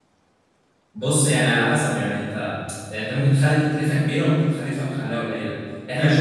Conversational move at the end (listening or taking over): taking over